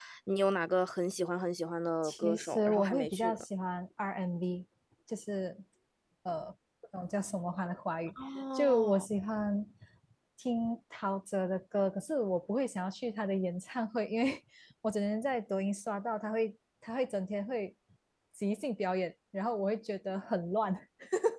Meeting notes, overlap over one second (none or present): present